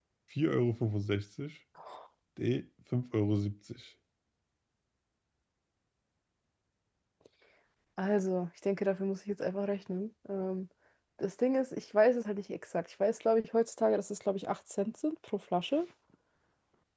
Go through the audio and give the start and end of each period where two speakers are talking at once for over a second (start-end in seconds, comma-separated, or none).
none